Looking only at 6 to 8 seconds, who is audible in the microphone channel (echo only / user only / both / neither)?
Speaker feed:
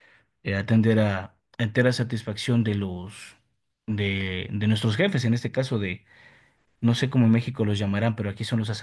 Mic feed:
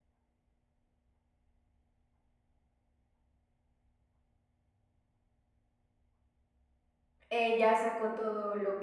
user only